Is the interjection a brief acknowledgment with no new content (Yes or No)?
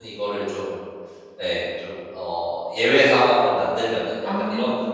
Yes